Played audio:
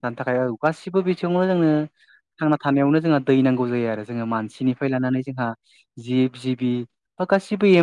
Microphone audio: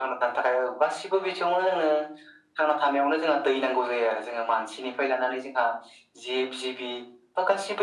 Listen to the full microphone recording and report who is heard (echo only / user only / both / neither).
echo only